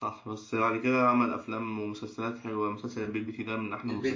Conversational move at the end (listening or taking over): taking over